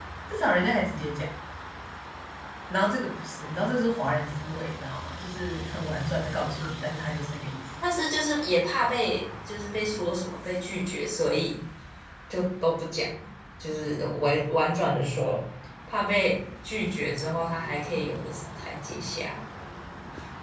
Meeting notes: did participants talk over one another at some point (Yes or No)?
No